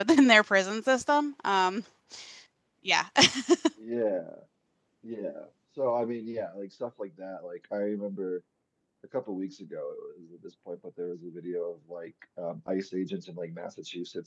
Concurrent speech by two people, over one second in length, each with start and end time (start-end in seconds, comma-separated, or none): none